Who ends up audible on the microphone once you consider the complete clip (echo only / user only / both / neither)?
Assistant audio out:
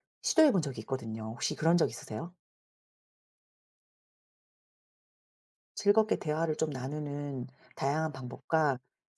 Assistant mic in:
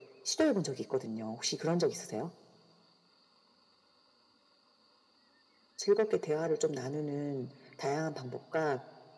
echo only